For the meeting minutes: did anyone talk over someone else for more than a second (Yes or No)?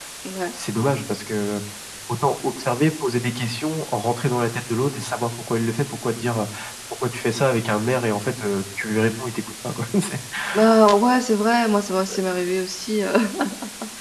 No